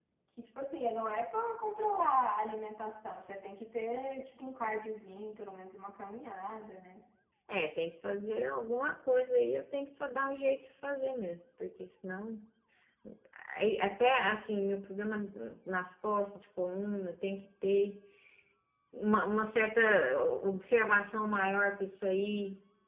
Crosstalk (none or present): none